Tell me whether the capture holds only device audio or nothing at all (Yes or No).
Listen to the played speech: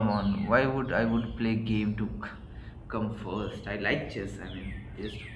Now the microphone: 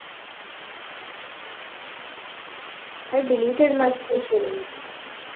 No